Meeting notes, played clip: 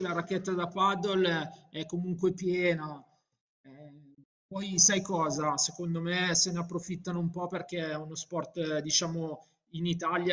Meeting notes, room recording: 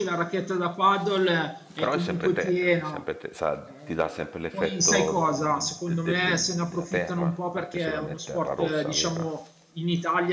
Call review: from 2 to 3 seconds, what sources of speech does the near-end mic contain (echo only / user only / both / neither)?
both